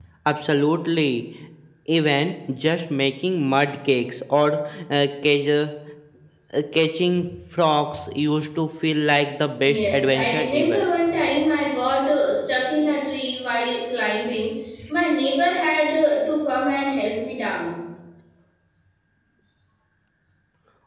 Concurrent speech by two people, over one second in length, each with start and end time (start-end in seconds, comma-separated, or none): 9.6-10.8